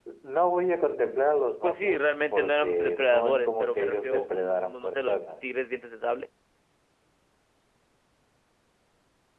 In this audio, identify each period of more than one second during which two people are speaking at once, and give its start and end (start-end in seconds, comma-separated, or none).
1.6-5.5